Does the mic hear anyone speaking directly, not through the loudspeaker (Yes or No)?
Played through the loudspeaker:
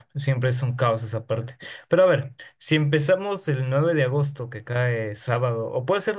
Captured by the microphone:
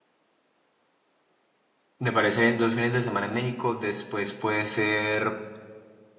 Yes